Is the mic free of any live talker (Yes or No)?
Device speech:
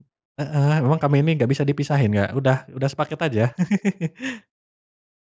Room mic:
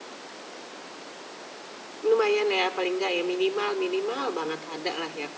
No